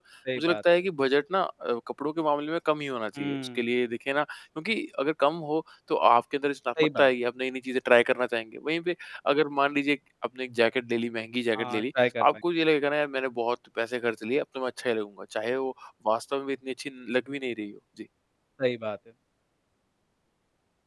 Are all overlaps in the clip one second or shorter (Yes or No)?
Yes